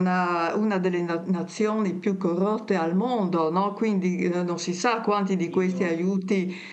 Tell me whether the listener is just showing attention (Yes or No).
Yes